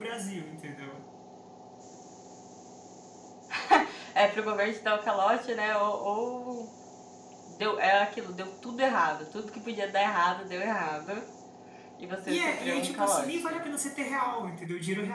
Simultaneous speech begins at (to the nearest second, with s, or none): 12 s